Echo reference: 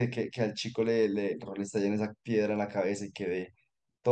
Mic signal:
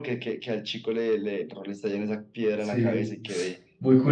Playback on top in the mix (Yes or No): No